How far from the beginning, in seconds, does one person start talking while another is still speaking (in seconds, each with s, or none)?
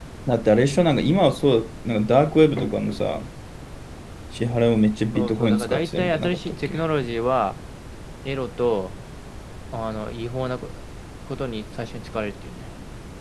5.2 s